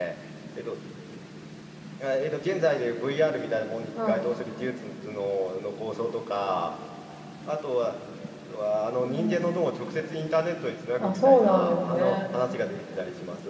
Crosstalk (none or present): present